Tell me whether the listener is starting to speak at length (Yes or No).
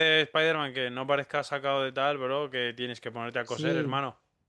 Yes